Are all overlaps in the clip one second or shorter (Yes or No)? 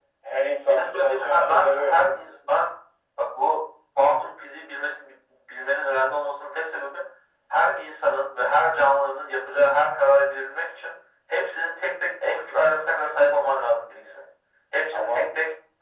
No